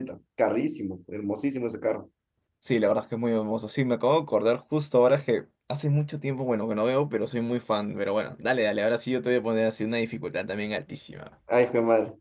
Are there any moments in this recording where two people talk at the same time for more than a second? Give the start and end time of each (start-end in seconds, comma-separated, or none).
none